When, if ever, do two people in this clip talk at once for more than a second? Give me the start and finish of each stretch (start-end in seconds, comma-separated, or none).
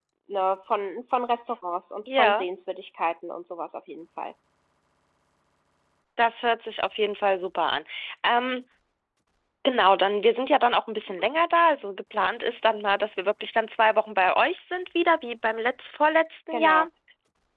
none